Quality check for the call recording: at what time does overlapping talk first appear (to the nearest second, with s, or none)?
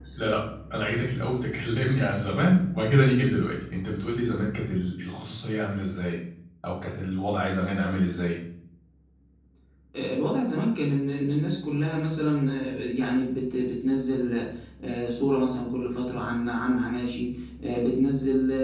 none